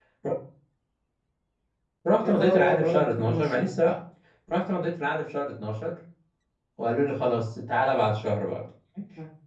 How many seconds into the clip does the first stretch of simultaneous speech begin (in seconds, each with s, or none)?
2.2 s